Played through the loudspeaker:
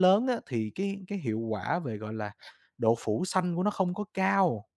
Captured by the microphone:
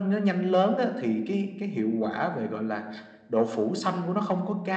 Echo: present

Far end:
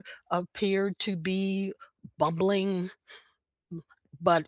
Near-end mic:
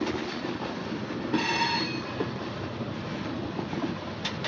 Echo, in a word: none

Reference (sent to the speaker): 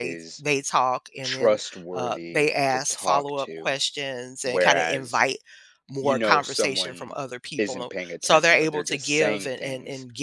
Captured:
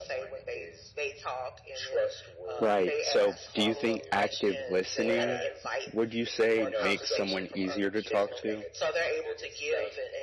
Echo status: present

